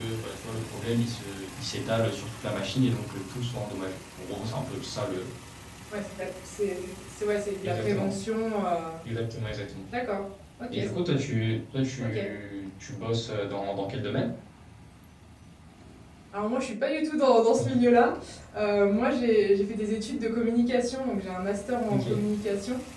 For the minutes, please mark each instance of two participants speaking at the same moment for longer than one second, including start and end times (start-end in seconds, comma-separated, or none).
none